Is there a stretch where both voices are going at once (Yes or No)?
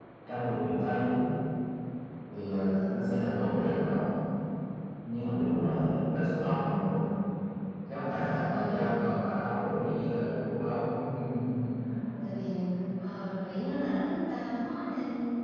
Yes